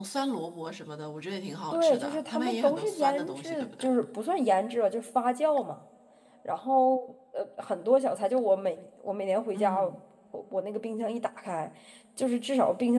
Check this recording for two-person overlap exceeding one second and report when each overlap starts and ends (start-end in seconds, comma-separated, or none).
1.7-3.9